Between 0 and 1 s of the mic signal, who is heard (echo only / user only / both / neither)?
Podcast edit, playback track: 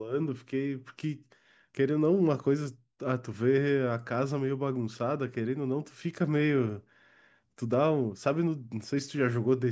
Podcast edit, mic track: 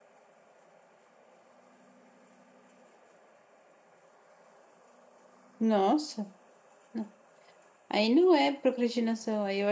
neither